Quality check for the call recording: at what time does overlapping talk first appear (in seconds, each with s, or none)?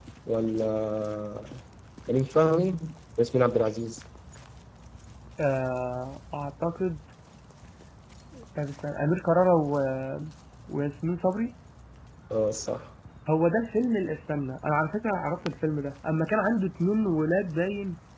none